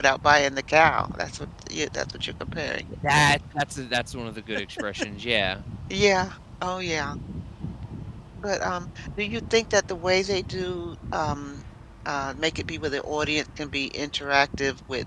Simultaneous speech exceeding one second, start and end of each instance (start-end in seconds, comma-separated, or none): none